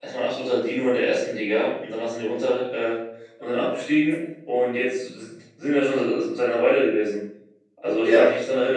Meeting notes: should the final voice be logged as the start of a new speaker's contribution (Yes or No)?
No